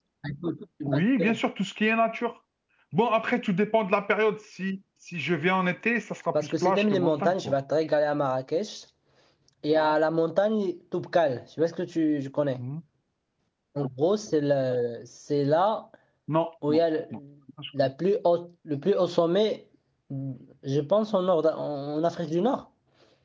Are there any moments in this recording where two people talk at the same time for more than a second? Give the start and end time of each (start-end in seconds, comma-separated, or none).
6.3-7.5